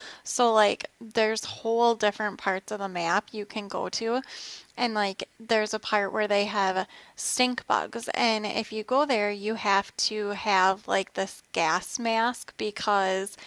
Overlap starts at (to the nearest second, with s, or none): none